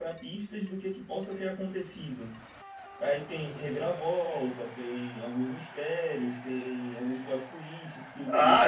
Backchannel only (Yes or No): No